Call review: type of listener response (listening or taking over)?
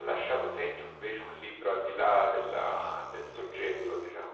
taking over